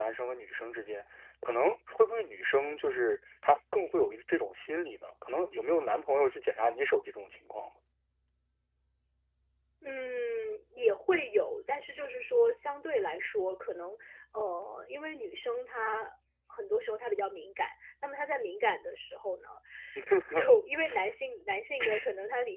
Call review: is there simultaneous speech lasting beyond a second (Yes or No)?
No